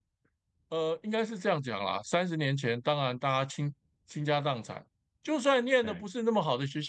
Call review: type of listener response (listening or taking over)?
listening